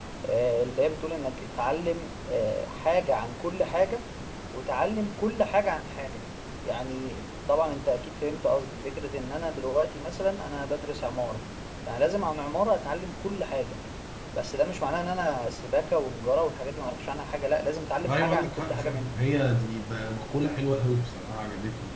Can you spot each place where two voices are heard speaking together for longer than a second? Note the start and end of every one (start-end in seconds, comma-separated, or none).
18.0-19.3